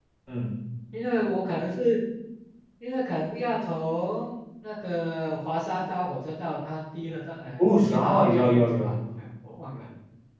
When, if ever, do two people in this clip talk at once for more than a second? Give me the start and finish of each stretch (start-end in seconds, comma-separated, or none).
7.6-8.9